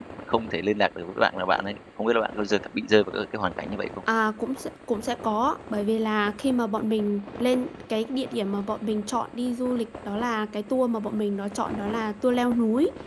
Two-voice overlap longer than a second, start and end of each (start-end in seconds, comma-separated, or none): none